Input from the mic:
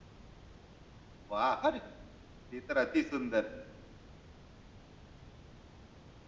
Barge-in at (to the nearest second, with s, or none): 1 s